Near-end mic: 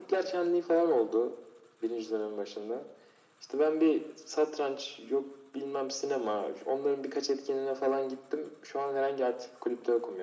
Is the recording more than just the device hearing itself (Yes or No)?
No